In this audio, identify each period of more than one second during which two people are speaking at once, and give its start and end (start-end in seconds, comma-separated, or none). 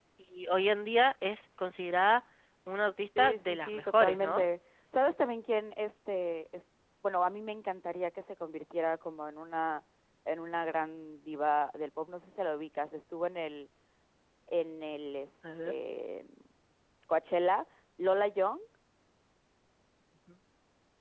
3.2-4.4